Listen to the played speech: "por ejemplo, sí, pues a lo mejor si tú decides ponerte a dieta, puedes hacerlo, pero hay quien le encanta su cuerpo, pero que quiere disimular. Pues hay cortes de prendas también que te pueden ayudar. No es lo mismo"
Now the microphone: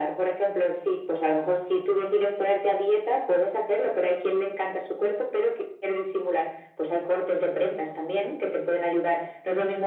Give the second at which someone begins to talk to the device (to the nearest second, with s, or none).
none